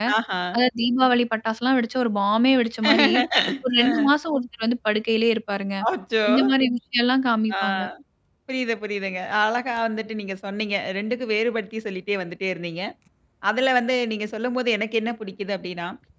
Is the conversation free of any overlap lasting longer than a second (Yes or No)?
Yes